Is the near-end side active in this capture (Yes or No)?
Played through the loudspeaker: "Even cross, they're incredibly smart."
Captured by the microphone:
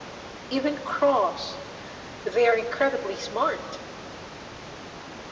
No